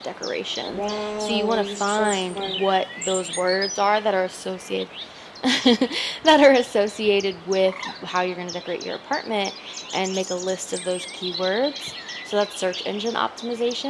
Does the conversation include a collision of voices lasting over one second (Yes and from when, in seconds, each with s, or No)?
Yes, from 0.7 s